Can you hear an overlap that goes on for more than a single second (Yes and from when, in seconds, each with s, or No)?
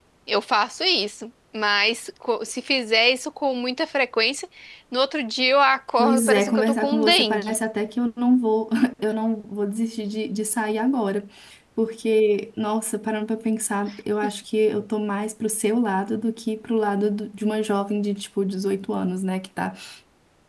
Yes, from 6.0 s